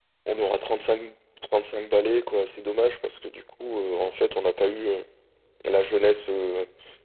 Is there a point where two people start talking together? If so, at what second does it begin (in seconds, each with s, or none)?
none